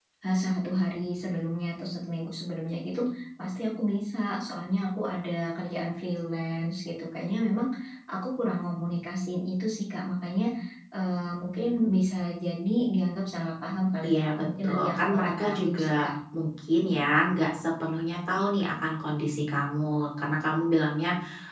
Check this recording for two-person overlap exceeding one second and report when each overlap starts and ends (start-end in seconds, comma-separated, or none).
14.0-16.1